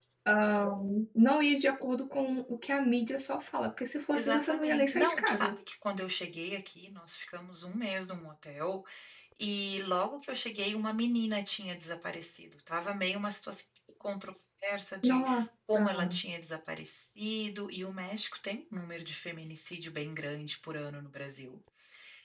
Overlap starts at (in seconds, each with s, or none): 4.1 s